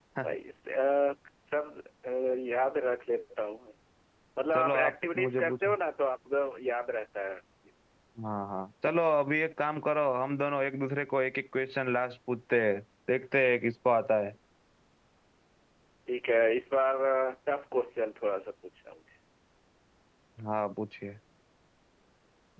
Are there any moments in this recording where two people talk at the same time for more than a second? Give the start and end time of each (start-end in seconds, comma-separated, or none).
4.5-5.8